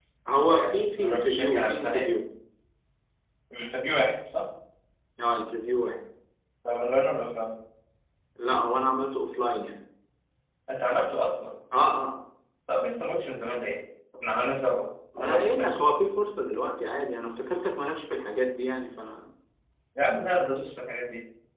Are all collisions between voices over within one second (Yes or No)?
No